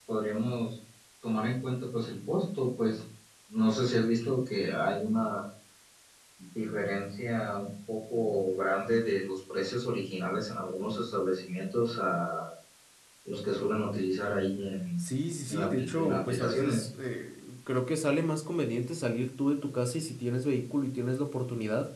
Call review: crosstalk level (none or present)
present